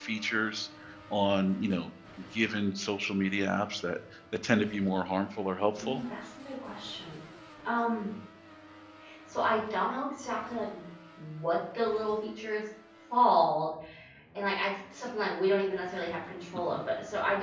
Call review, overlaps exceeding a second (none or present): none